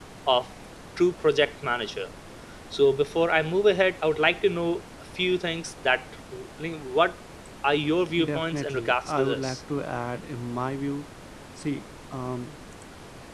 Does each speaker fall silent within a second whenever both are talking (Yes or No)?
No